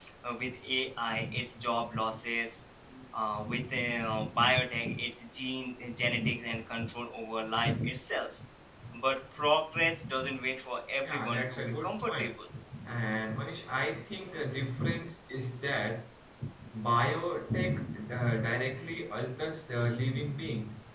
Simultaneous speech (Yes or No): Yes